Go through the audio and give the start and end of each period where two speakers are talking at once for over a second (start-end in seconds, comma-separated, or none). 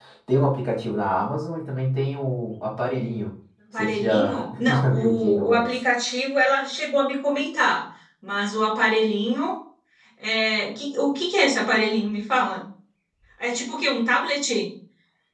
3.8-5.7